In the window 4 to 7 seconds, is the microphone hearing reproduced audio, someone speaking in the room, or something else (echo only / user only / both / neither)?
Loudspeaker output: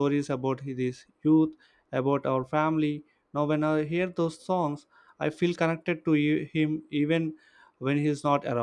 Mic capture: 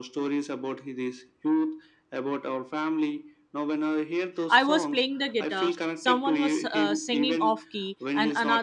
both